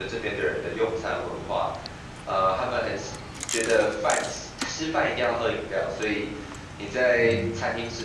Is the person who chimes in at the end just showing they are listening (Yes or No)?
Yes